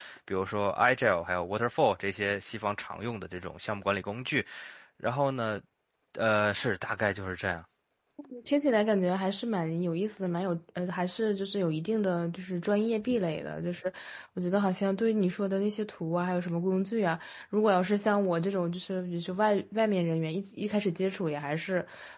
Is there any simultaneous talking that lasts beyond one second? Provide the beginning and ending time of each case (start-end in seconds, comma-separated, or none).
none